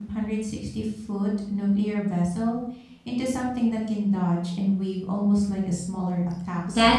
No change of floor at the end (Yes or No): No